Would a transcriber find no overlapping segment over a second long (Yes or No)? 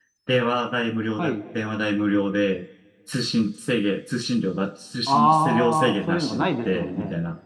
No